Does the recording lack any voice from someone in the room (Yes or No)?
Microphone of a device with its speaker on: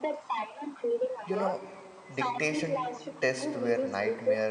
No